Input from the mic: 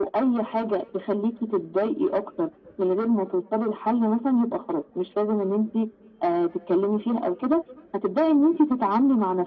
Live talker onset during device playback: none

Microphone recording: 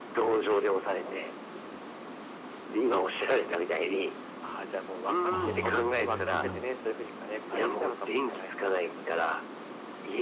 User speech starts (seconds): 5 s

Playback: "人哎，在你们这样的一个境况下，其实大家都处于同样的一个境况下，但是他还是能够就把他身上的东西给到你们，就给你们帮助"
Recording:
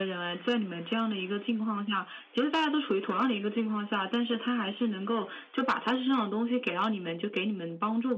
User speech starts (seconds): none

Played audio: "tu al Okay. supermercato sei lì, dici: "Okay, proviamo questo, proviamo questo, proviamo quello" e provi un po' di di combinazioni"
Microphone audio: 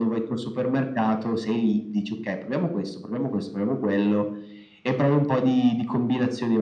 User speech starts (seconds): none

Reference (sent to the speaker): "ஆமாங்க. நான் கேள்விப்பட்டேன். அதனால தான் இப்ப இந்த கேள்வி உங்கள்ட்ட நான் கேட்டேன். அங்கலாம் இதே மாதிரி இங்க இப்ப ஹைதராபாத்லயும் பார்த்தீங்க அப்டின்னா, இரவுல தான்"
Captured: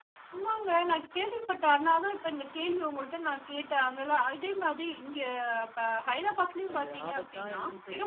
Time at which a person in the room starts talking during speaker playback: 7 s

